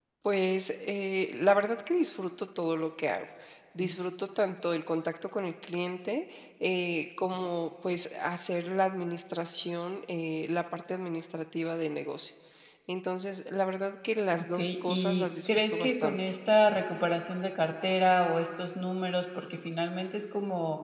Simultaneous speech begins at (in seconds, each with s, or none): 14.5 s